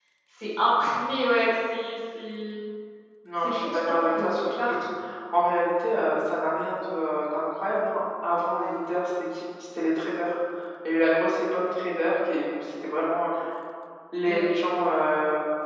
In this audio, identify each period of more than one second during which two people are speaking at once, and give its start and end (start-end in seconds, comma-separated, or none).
3.4-4.9